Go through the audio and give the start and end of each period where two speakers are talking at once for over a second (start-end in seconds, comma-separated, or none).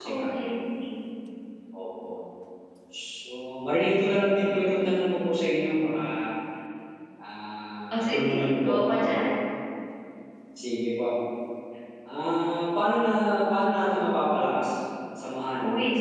7.9-9.2